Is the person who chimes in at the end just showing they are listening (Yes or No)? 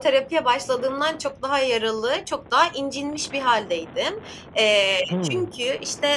Yes